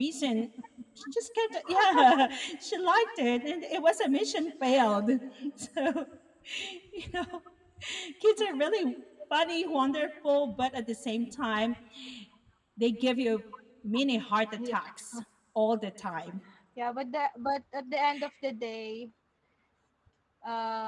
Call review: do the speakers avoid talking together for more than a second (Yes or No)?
Yes